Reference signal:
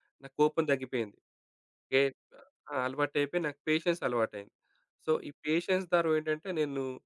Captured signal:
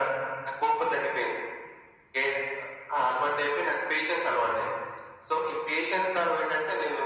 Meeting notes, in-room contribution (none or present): none